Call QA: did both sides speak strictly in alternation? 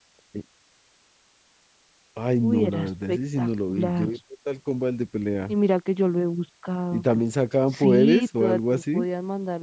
No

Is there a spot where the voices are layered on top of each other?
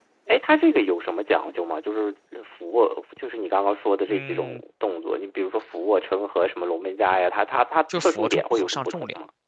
Yes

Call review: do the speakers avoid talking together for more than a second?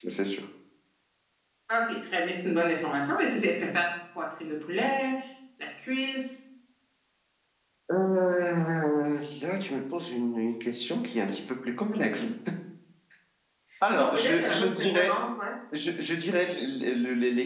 No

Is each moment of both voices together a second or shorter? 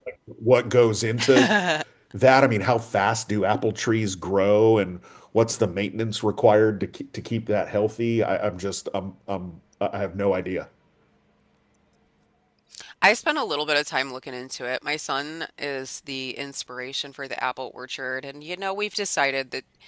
Yes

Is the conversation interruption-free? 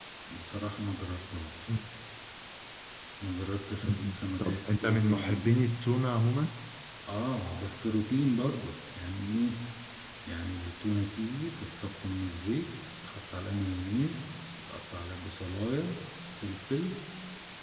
No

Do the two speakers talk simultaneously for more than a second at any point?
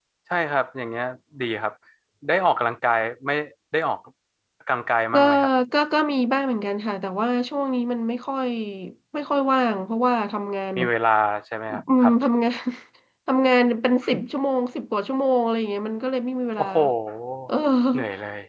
No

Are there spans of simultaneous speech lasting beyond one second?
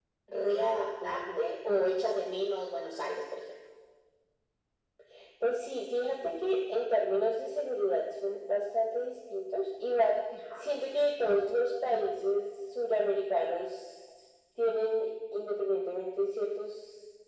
No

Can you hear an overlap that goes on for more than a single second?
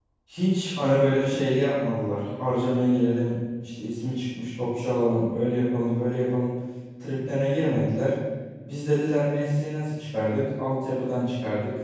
No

